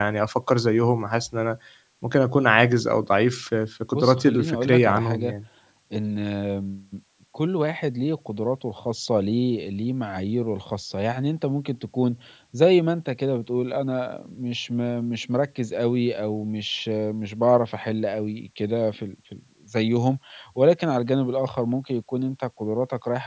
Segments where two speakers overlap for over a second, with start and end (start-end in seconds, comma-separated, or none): 3.9-5.3